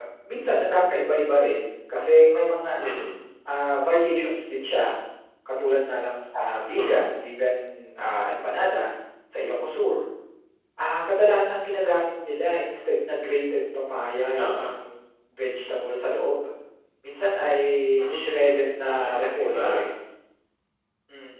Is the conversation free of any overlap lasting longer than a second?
No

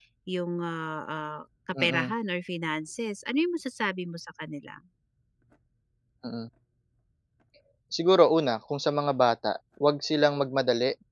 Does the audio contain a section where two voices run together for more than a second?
No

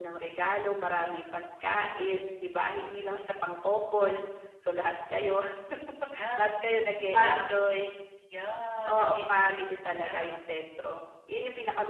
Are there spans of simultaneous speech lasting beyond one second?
Yes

